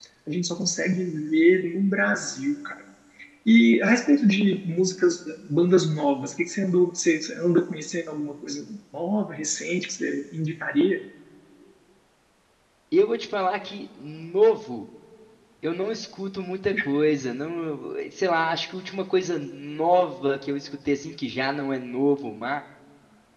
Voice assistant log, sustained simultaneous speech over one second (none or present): none